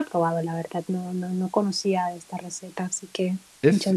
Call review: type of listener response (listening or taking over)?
taking over